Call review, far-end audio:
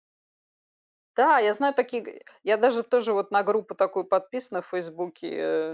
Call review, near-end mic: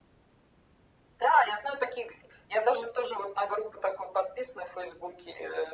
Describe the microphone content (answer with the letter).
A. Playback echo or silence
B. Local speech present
A